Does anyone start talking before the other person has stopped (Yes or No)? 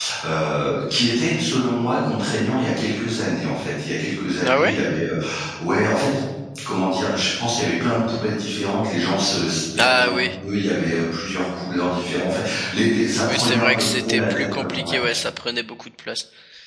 Yes